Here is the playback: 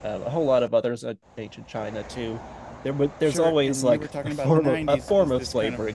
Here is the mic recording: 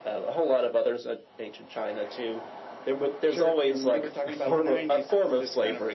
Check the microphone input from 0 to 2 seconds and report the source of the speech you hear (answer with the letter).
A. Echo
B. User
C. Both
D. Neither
A